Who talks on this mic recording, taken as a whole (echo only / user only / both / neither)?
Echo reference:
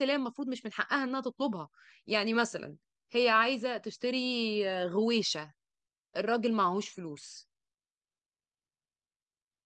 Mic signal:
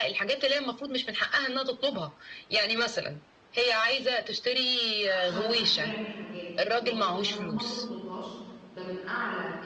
both